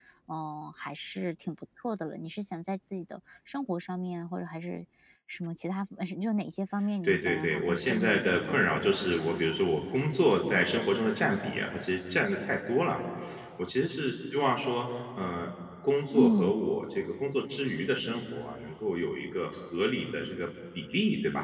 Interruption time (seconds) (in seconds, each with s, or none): 7.0 s